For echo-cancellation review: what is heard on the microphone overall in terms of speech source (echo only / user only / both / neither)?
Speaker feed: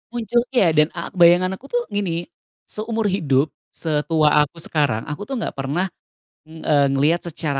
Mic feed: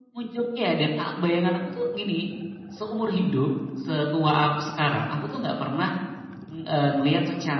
echo only